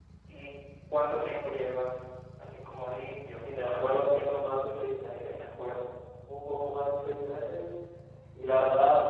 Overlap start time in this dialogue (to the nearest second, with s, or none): 3 s